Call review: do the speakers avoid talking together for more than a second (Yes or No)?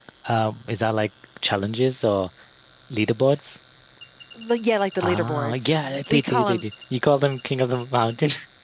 No